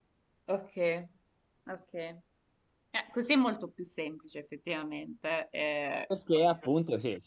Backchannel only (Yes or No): No